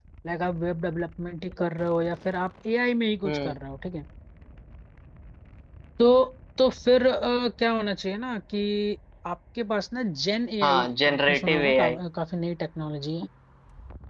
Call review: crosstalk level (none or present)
present